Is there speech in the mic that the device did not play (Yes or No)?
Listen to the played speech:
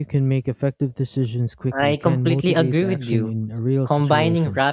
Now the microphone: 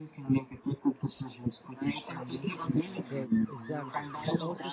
Yes